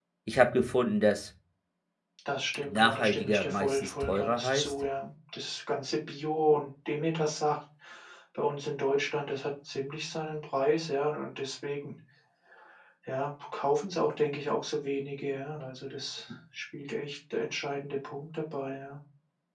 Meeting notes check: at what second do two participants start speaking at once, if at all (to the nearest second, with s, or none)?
3 s